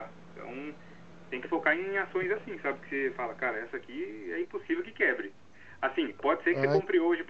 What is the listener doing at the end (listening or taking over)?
listening